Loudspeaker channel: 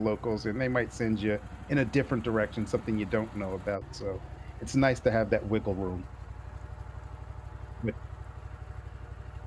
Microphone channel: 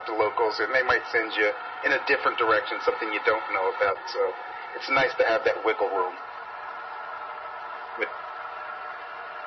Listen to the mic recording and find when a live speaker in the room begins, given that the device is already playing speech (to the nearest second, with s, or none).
none